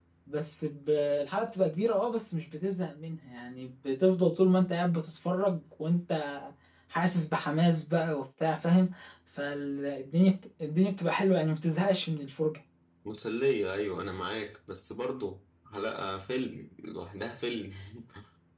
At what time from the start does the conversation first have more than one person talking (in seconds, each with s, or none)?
none